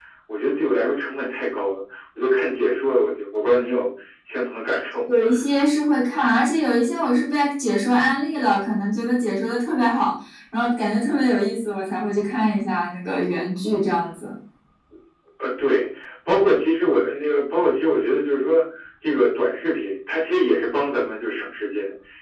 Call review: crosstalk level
none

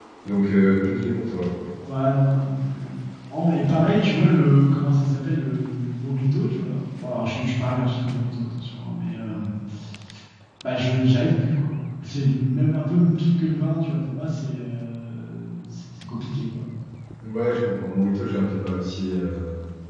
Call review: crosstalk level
none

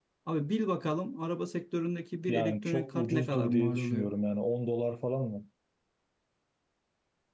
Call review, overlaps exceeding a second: present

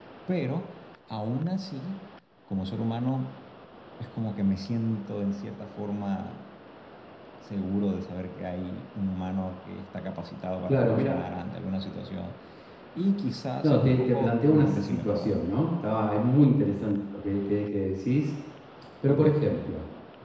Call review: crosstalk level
present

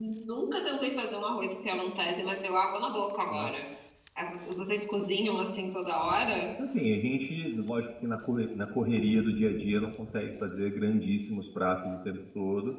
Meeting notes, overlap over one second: none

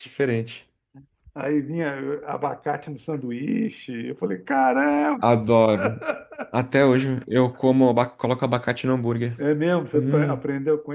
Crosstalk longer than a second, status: none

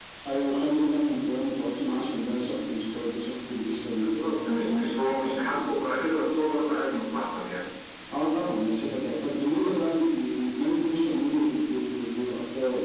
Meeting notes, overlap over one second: present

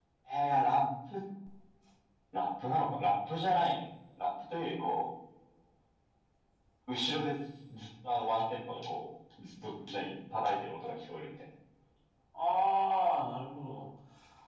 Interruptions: none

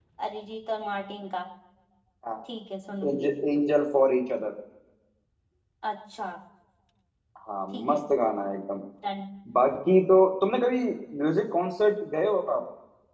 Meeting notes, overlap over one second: none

